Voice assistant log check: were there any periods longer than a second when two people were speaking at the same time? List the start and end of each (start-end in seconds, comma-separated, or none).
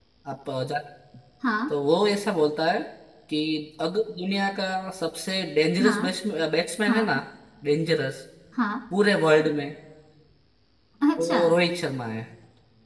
none